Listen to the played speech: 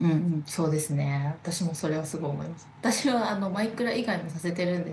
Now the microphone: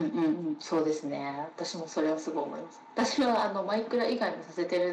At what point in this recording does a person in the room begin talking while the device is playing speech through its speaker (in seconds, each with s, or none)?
none